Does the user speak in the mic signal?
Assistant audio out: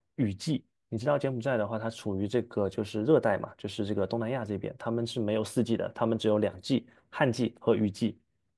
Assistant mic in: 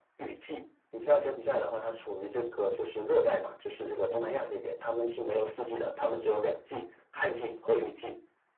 No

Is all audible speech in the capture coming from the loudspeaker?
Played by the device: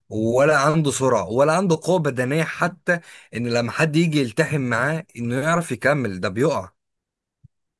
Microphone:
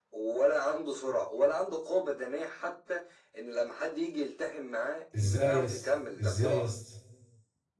No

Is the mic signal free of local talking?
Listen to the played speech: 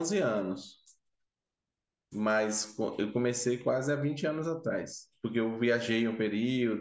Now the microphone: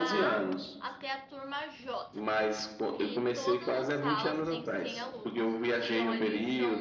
No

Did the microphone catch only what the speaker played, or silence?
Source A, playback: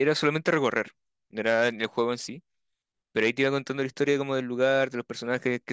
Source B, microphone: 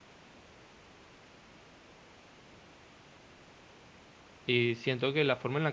No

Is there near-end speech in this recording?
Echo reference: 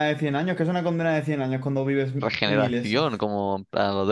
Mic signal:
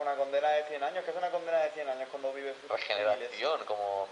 No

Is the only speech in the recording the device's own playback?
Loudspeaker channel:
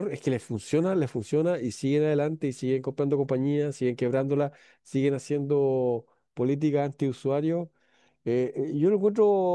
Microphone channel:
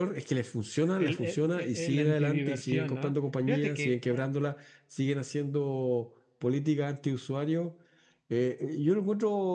No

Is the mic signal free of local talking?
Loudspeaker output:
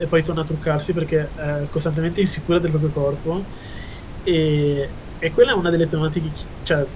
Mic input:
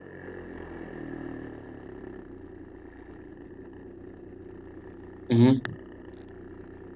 No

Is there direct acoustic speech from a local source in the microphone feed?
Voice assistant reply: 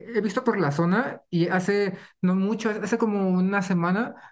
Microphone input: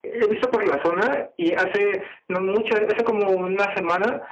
No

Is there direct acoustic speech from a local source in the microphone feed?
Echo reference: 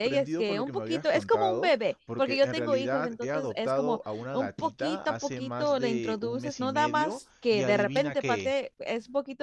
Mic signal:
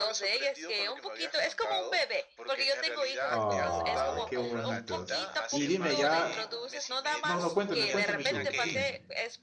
Yes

